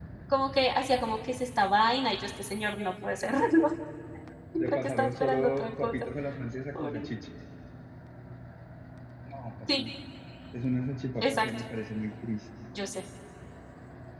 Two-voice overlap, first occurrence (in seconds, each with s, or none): 4.6 s